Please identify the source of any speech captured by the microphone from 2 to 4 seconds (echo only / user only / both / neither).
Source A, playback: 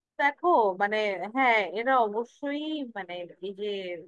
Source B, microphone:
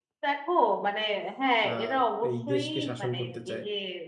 both